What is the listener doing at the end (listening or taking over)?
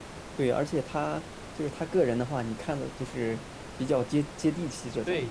taking over